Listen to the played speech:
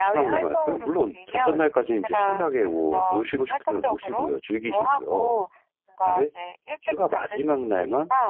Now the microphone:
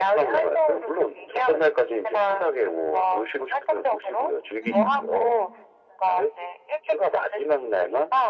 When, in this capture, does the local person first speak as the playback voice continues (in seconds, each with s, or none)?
4.6 s